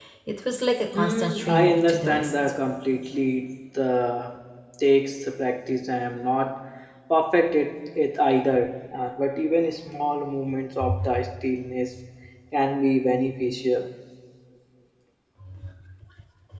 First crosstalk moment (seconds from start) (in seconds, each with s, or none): 0.9 s